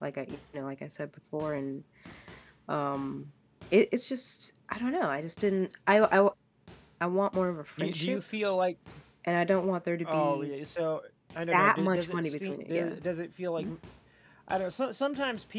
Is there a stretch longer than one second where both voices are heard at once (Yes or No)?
Yes